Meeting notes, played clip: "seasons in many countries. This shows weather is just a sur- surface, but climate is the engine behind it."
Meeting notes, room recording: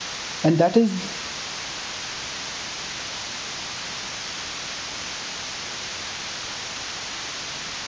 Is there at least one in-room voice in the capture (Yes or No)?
Yes